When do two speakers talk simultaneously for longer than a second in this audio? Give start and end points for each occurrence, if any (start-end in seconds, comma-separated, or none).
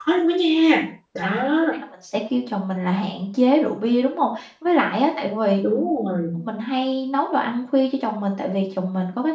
none